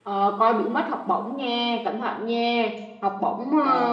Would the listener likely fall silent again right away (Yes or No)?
Yes